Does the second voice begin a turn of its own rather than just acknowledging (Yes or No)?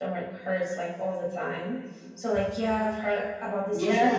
Yes